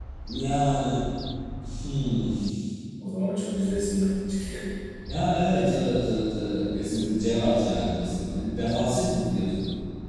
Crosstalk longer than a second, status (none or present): none